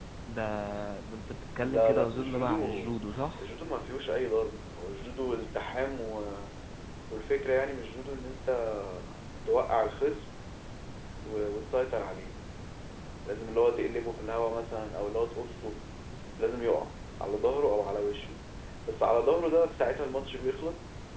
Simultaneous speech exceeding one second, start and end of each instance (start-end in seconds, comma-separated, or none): 1.6-3.0